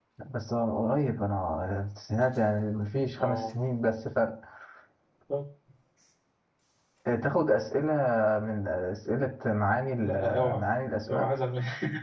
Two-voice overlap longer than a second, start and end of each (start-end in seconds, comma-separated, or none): none